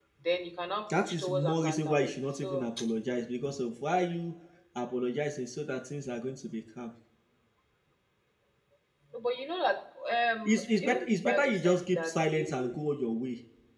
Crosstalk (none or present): present